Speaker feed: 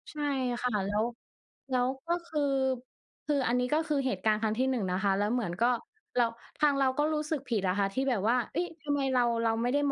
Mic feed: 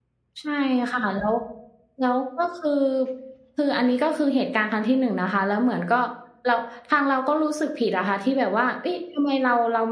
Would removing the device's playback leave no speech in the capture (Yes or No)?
Yes